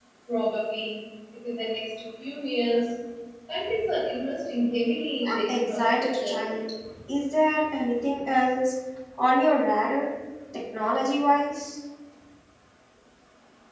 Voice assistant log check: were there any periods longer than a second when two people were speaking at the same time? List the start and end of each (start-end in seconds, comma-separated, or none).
5.2-6.5